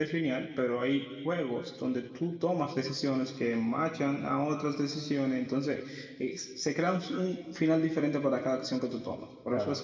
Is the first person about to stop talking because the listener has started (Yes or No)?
No